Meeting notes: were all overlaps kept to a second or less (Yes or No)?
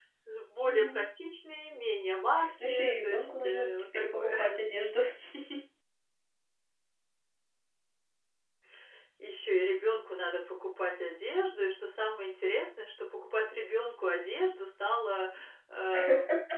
No